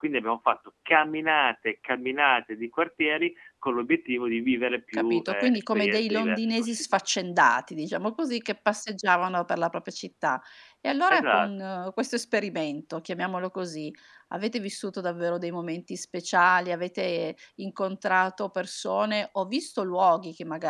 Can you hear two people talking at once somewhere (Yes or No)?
Yes